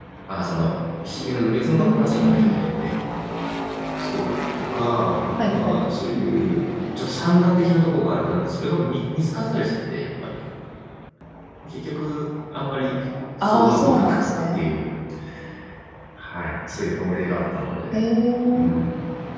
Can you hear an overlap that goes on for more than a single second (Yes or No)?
Yes